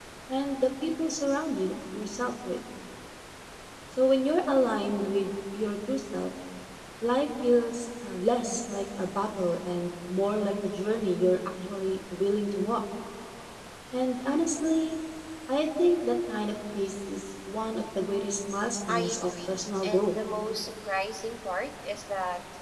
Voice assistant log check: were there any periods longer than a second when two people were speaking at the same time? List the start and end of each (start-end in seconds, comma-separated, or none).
18.9-20.1